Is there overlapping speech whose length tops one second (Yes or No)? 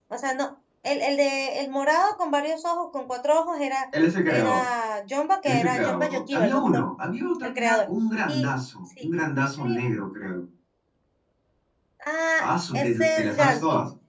Yes